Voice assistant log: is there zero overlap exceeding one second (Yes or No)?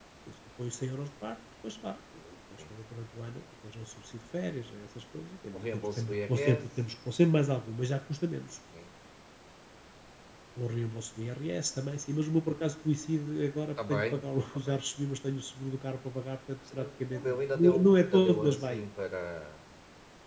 No